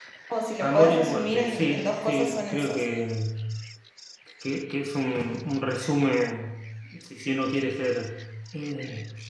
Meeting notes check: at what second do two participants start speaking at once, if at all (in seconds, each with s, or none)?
0.6 s